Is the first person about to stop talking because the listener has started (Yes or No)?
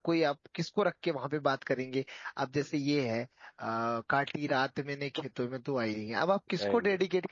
No